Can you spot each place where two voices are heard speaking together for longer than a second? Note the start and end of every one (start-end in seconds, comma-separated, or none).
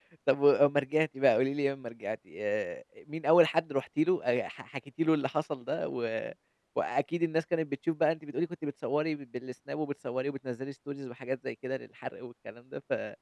none